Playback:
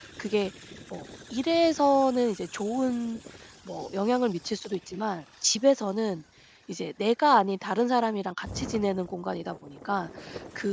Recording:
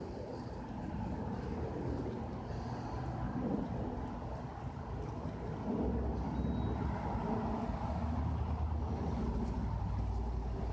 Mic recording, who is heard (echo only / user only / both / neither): neither